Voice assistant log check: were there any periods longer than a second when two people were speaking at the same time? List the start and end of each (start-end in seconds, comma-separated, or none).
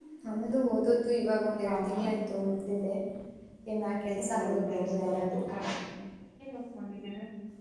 4.2-5.4